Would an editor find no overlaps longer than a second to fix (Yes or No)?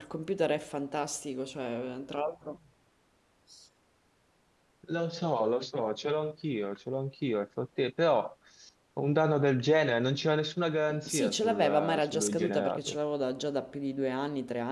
No